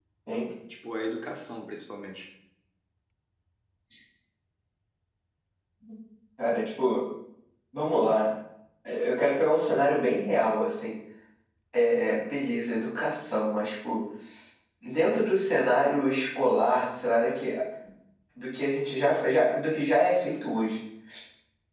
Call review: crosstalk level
none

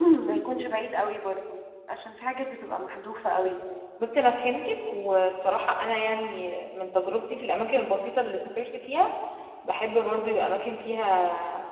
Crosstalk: none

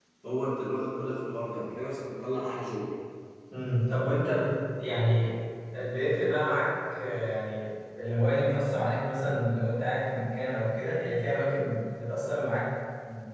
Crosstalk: none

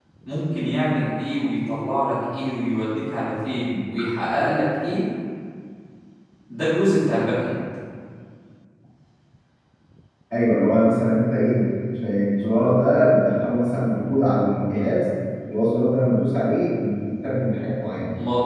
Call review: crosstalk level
none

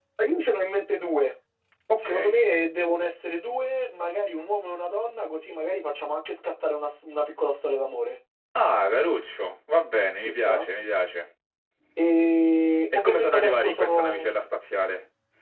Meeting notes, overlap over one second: present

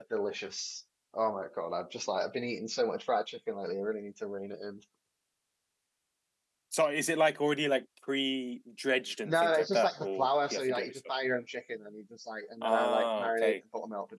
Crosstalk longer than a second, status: present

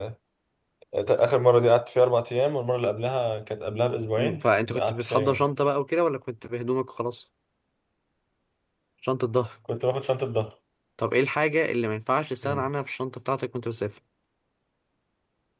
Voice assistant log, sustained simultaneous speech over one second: present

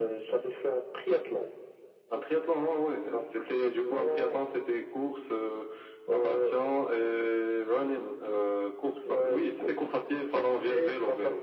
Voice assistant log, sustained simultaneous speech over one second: present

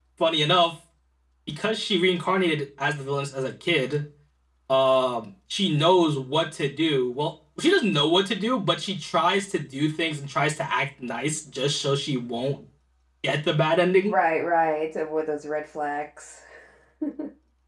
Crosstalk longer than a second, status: none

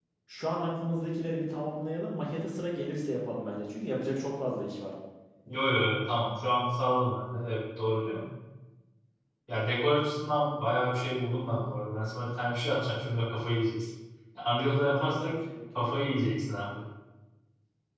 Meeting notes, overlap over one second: none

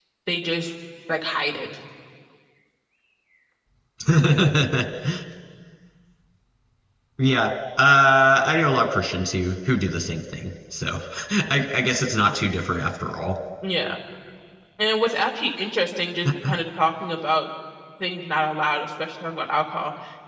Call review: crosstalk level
none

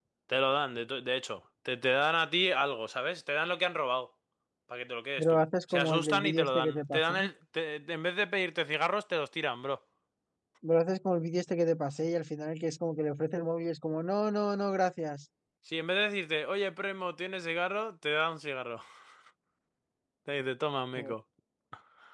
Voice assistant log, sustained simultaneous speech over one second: present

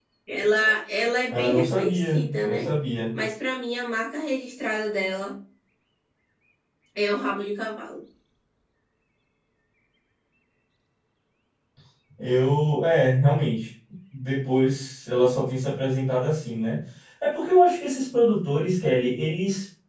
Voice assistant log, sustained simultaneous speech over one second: present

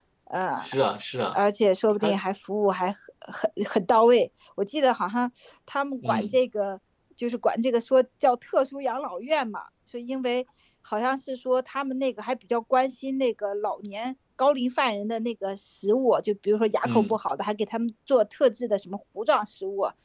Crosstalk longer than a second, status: none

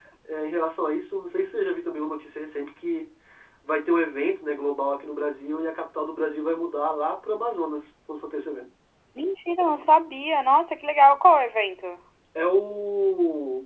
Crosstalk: none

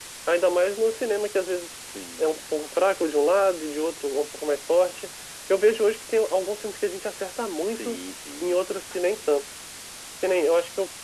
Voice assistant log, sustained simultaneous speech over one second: none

